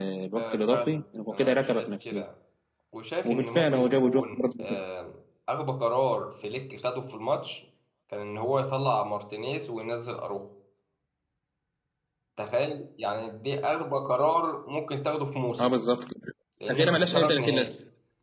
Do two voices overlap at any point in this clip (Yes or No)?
Yes